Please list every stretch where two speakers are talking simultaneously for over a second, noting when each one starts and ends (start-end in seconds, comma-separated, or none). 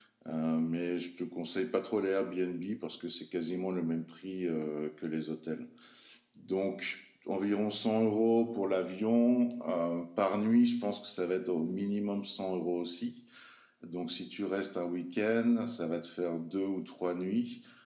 none